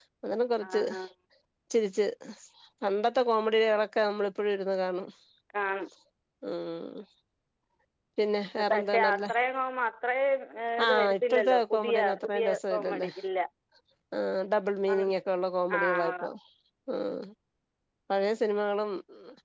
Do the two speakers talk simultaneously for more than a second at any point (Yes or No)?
Yes